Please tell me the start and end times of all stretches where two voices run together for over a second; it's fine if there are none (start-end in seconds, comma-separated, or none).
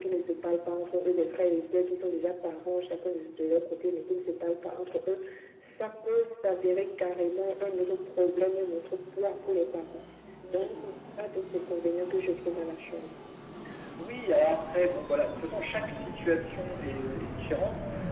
none